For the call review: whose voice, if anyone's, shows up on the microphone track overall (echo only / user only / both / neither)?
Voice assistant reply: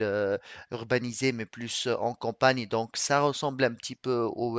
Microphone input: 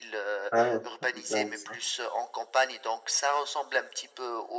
both